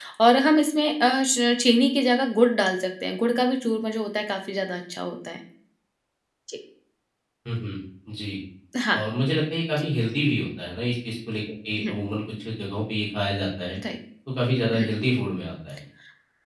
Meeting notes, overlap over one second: none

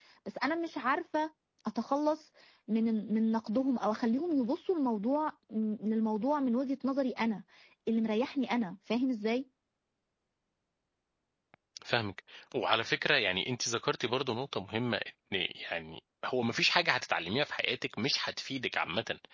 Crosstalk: none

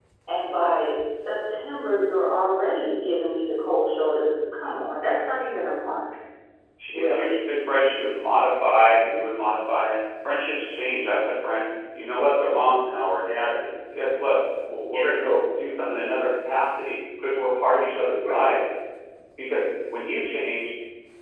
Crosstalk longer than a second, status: none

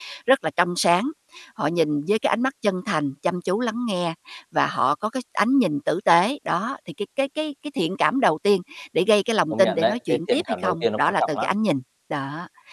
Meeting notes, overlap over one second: present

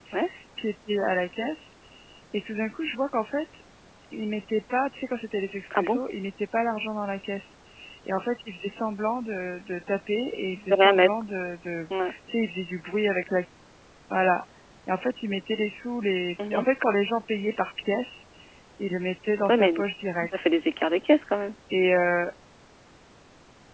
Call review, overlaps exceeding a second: none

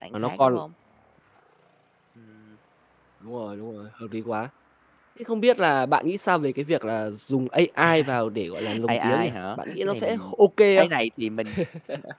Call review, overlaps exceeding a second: present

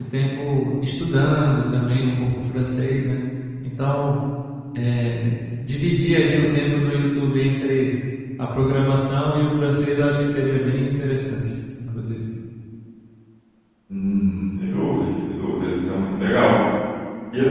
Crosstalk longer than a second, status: none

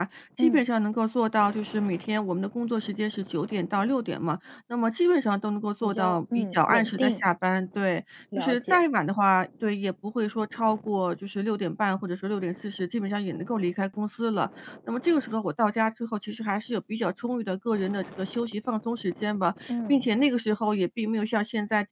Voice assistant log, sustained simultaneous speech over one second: present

